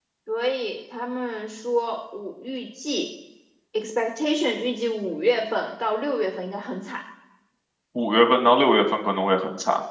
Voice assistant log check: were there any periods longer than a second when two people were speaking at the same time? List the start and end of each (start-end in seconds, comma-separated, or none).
none